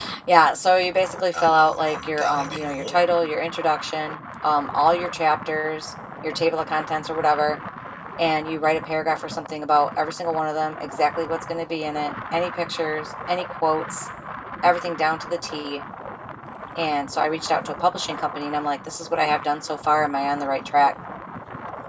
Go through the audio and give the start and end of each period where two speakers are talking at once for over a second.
1.3-3.0

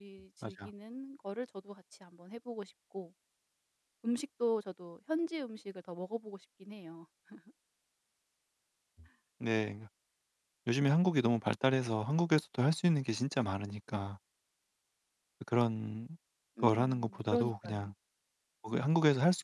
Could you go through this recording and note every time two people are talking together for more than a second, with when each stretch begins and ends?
16.6-17.8

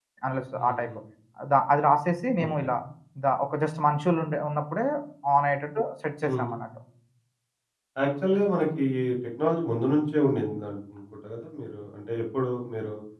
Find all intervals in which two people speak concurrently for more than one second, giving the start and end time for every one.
none

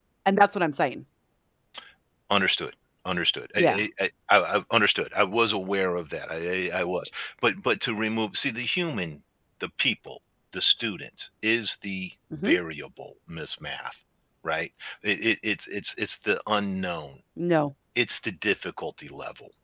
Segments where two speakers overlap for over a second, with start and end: none

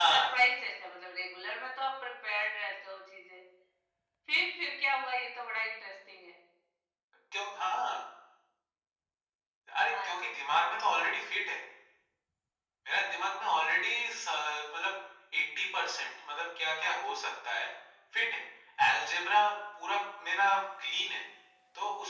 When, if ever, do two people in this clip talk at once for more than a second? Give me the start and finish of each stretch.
none

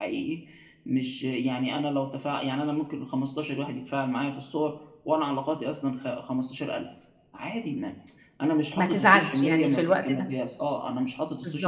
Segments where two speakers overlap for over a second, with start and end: 8.8-10.3

